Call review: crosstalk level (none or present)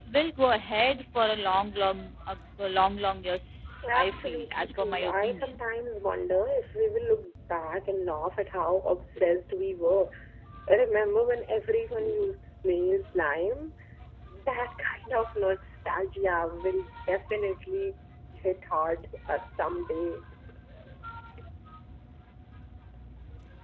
present